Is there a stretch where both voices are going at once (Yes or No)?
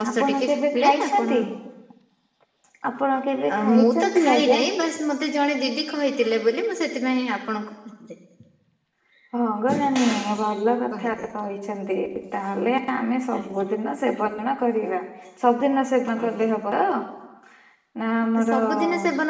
Yes